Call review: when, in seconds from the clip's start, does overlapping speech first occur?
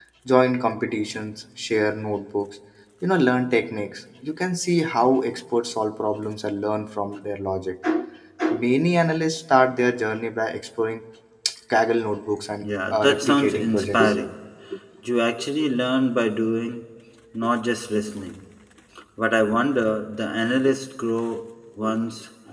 12.6 s

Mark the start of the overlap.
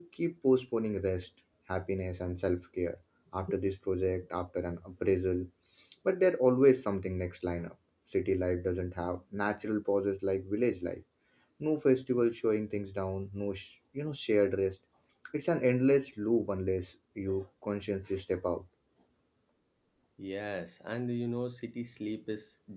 none

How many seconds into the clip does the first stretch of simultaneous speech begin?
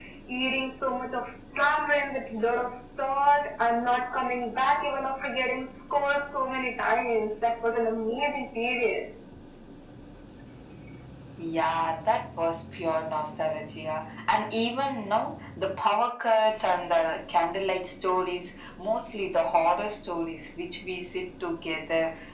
none

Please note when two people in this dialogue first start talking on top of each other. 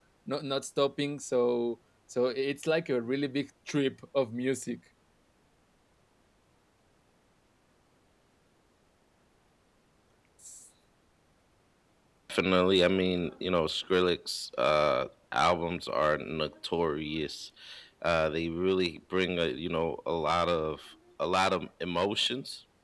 none

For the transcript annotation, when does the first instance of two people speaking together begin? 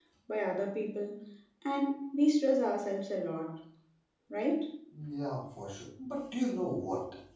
none

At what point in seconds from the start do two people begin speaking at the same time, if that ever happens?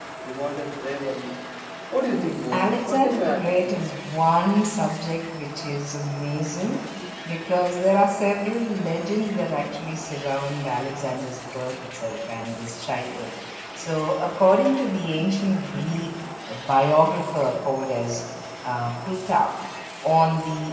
2.5 s

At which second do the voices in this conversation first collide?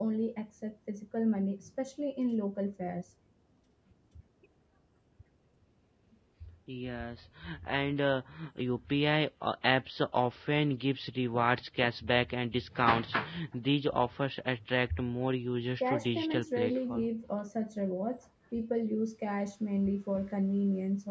15.8 s

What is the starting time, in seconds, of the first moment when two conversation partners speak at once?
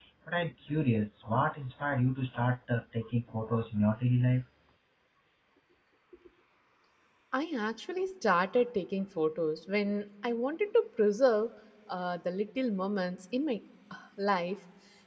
none

